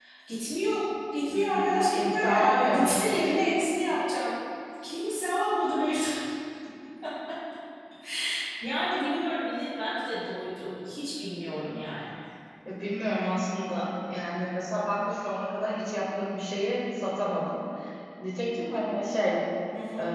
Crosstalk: present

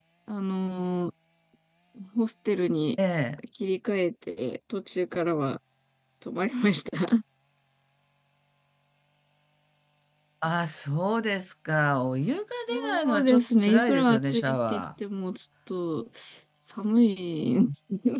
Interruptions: present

